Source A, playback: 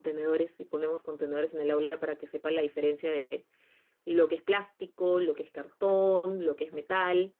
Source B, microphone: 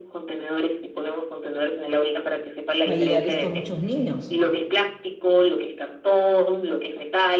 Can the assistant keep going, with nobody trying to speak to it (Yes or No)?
No